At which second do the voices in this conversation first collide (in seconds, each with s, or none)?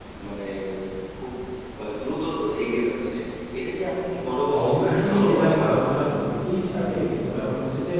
4.5 s